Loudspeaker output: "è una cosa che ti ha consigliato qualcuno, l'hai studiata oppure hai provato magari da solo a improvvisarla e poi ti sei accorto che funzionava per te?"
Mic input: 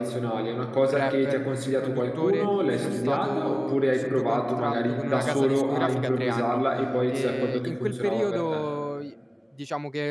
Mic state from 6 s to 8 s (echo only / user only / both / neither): both